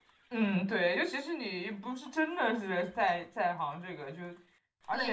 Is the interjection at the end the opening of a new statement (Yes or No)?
Yes